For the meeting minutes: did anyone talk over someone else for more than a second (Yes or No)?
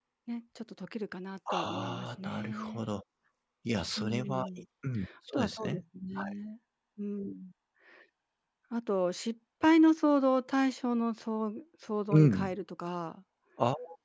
Yes